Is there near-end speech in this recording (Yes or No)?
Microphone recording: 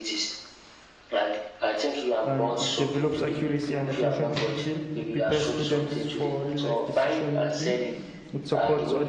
Yes